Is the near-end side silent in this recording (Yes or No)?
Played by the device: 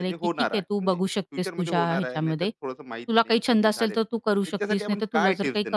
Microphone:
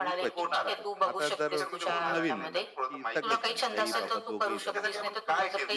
No